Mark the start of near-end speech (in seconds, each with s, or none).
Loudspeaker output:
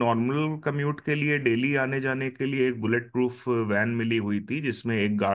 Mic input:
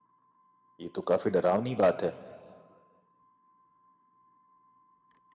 0.8 s